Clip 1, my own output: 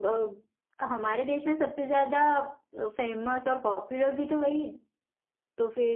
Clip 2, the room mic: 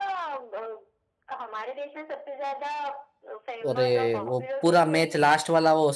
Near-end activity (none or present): present